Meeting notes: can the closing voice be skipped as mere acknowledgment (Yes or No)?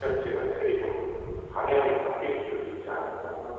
No